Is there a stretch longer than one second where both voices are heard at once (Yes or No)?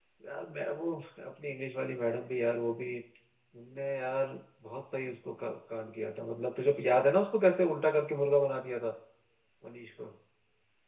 No